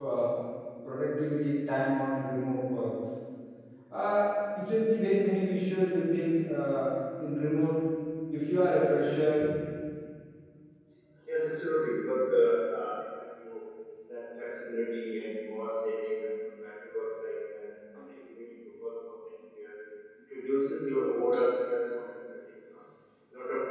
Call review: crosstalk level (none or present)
none